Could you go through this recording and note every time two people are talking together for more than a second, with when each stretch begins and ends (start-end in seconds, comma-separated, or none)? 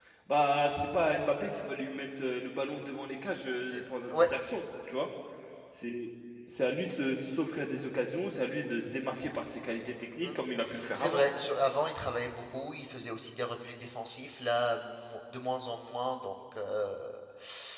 none